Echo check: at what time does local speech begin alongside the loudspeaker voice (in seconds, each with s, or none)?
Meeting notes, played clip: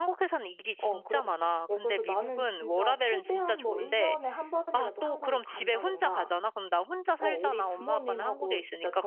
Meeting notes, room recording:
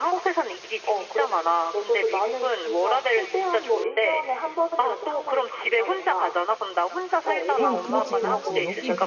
7.5 s